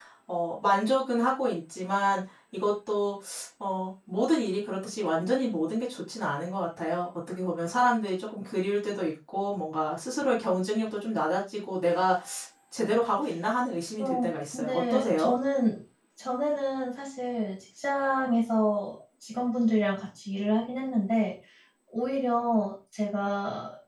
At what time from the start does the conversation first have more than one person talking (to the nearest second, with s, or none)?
14 s